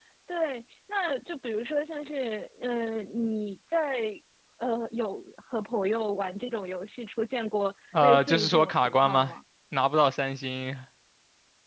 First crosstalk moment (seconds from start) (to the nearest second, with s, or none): 8 s